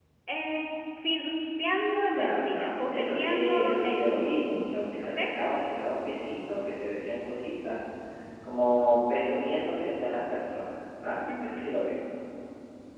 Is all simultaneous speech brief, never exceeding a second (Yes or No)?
No